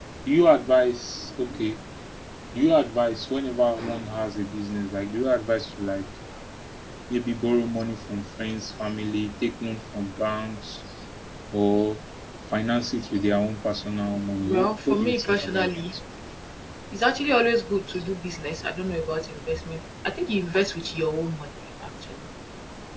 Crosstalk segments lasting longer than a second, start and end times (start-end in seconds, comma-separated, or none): 14.4-15.8